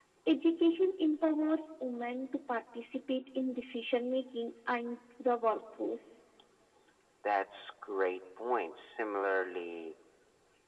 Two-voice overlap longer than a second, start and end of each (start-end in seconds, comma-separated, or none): none